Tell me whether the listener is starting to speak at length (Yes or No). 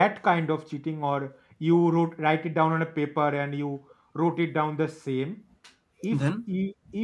No